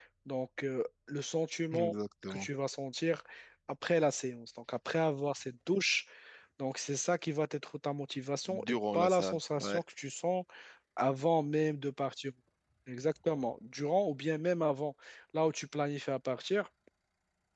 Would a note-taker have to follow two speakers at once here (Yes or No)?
Yes